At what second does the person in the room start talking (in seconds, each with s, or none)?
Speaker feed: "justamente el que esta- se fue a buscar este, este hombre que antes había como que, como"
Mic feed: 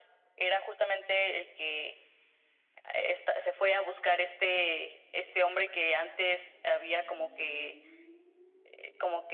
none